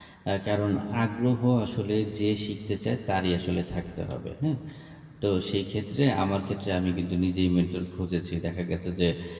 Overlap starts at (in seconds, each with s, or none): none